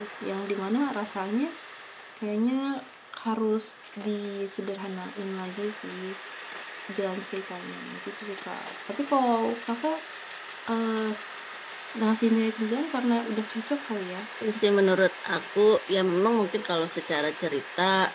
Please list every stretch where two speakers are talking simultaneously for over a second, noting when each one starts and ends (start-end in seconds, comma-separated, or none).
none